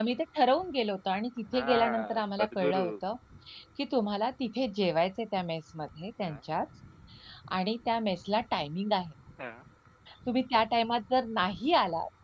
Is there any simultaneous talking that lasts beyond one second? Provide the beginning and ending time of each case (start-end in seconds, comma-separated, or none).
1.5-2.9